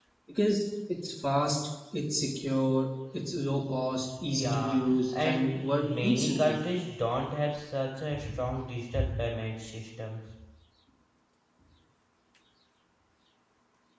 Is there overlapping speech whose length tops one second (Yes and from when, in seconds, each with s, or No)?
Yes, from 4.3 s